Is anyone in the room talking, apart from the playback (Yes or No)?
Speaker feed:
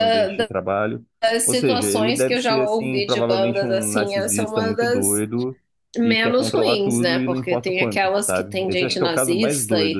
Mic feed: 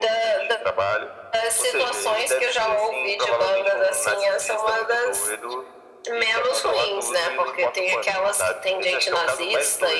No